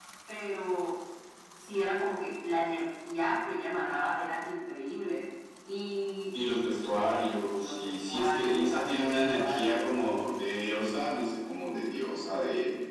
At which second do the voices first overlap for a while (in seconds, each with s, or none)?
7.6 s